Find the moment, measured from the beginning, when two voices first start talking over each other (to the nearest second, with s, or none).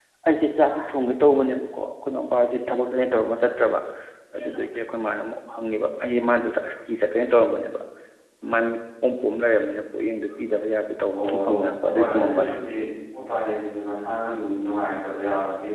11 s